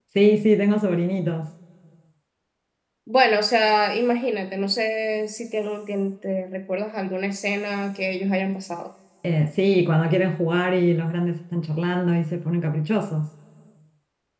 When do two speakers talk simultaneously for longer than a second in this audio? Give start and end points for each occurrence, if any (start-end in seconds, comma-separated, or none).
none